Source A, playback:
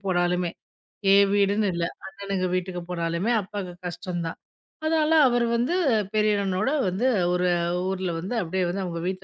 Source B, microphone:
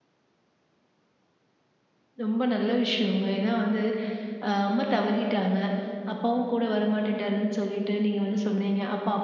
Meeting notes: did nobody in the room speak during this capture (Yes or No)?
No